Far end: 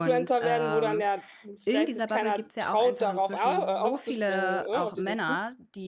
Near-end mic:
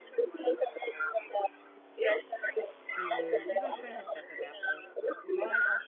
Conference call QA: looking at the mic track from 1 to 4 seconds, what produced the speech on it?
both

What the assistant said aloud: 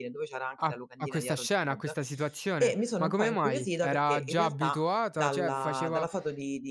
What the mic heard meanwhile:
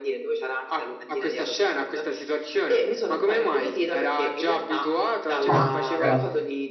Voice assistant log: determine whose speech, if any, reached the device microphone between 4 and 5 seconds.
echo only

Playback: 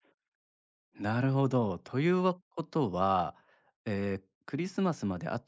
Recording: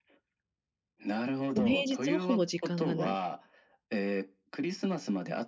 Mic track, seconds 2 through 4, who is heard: both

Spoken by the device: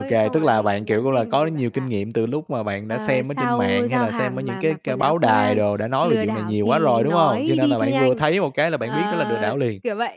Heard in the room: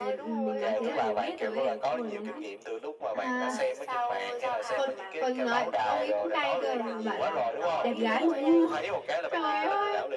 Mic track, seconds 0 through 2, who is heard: both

